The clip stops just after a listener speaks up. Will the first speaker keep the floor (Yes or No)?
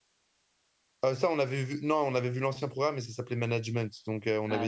Yes